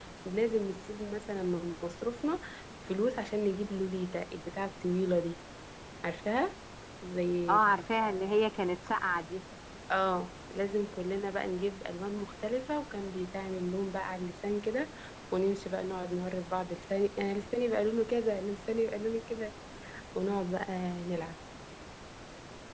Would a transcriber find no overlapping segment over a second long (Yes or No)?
Yes